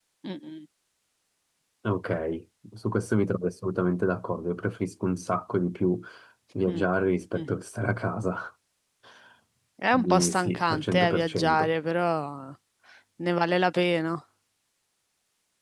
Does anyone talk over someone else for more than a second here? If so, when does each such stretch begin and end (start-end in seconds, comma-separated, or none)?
9.9-11.7